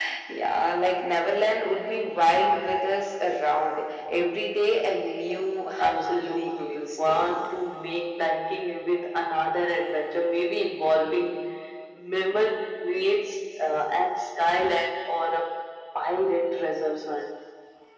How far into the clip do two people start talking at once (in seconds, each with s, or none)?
5.8 s